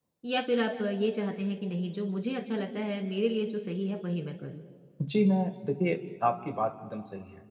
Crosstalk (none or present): none